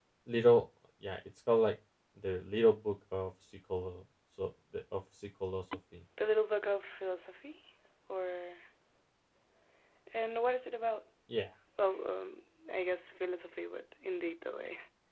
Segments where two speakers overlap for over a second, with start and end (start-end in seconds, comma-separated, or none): none